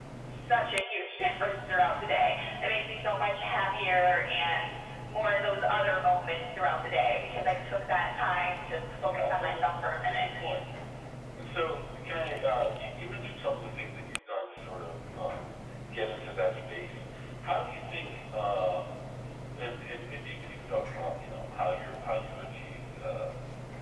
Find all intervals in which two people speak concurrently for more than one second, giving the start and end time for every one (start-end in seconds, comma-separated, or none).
9.0-10.3